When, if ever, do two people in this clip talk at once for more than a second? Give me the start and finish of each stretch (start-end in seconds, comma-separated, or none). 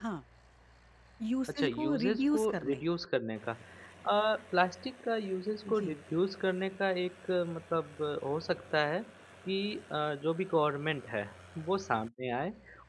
1.5-2.8